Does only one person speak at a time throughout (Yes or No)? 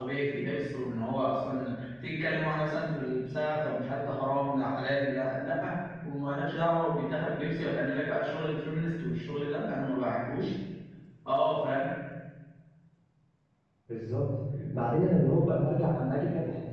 Yes